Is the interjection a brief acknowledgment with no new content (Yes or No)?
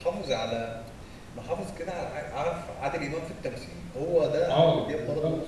Yes